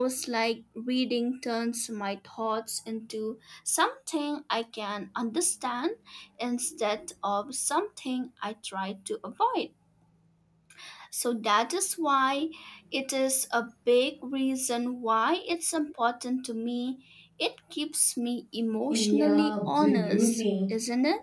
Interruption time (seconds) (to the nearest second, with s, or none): 19 s